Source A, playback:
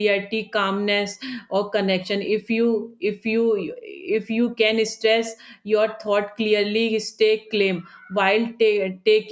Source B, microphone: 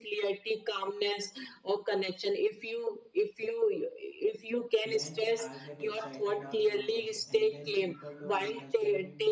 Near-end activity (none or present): present